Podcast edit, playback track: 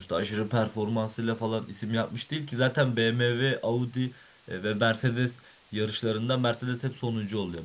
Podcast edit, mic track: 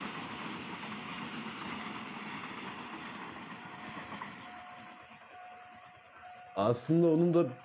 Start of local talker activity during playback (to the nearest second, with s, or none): 7 s